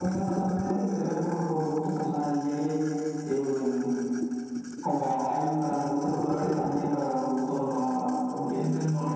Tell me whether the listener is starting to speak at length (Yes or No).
Yes